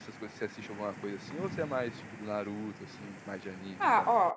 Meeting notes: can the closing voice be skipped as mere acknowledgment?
No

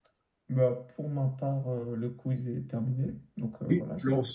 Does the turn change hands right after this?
Yes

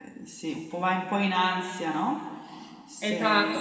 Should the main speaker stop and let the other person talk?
Yes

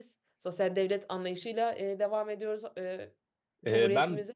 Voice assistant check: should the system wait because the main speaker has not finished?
No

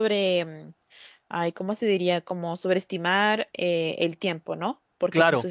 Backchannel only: Yes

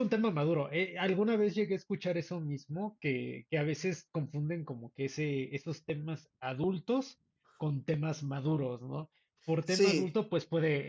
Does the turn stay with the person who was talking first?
Yes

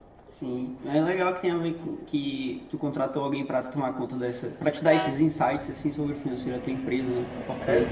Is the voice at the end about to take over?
Yes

